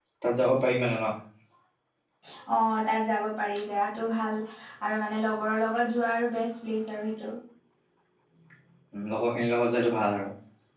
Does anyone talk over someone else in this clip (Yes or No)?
No